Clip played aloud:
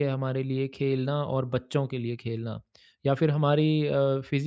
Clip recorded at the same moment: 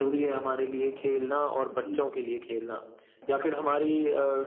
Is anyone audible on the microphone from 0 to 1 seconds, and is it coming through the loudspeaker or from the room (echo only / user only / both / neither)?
echo only